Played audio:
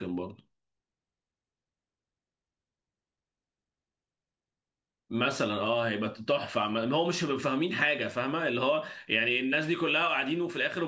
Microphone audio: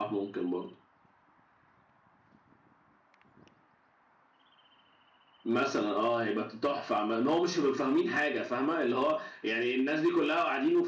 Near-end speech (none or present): none